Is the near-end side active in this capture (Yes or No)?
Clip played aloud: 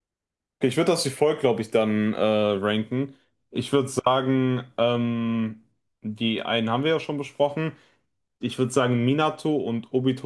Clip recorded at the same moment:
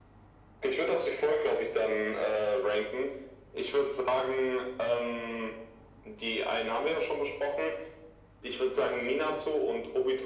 No